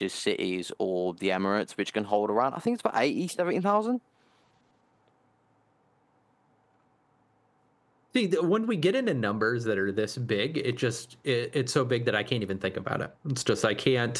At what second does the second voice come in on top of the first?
none

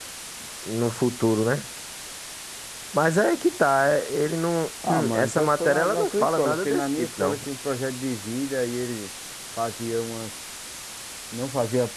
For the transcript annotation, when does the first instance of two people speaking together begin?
5 s

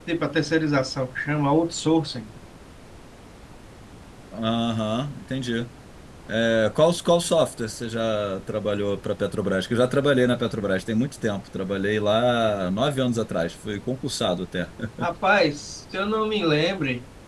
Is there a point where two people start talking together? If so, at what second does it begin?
none

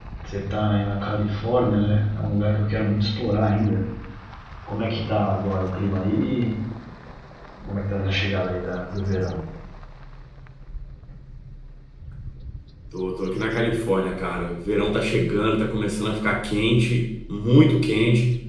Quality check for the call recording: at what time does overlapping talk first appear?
none

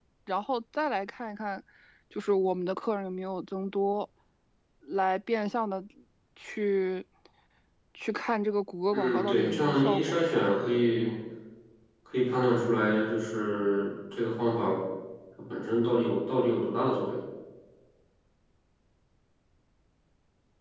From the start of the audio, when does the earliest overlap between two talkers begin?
9 s

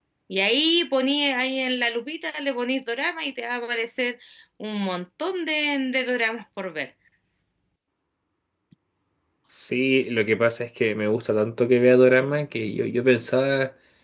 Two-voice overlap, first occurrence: none

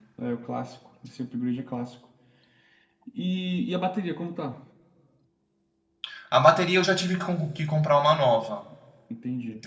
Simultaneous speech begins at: none

